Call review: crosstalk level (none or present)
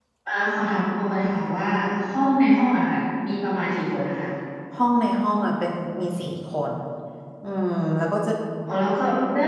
none